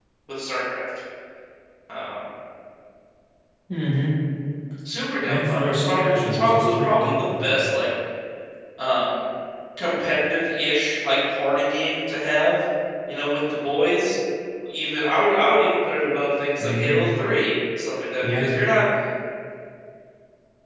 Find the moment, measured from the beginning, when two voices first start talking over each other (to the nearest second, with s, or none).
5 s